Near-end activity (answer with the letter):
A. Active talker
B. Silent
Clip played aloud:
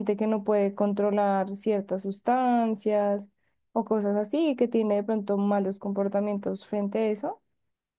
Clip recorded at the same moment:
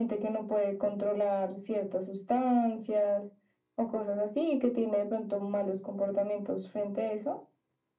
B